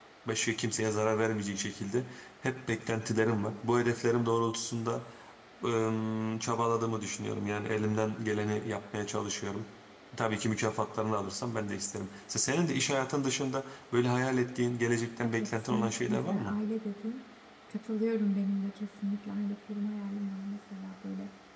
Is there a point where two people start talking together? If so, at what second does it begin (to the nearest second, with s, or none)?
15 s